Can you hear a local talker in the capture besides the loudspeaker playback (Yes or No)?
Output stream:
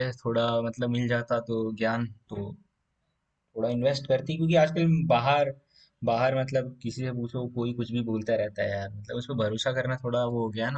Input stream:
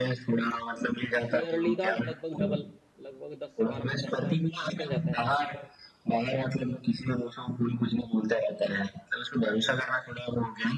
Yes